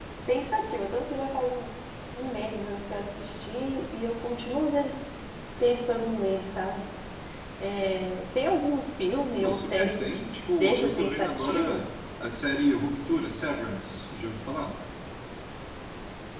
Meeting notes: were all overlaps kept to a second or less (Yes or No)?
No